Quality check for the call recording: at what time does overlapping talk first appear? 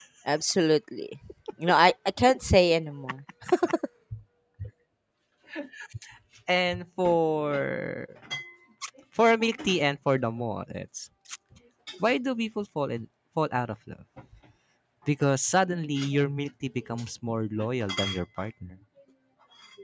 none

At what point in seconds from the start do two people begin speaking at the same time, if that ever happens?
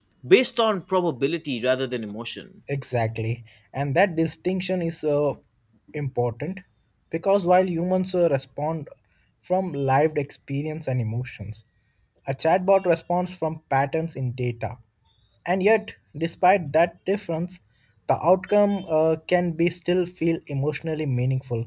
none

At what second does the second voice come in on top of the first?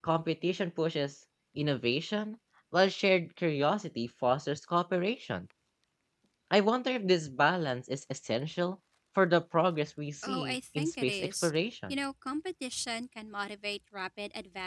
10.2 s

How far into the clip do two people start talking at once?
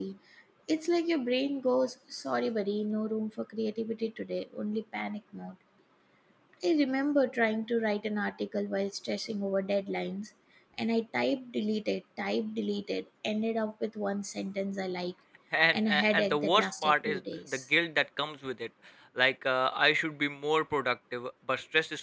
15.7 s

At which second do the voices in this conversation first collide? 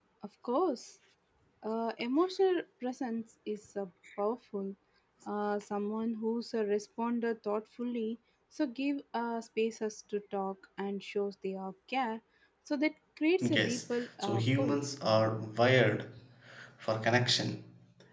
13.4 s

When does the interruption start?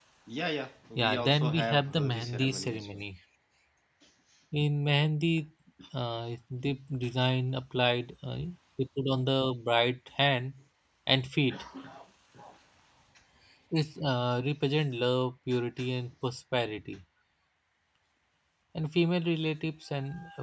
1.0 s

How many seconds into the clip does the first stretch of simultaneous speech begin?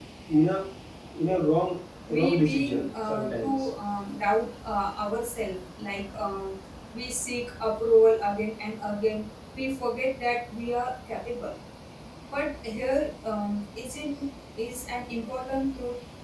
2.1 s

